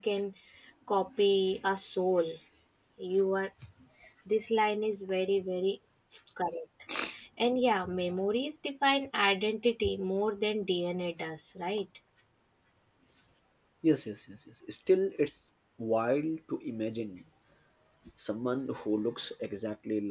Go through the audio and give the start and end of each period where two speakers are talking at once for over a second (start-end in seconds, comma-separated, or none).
none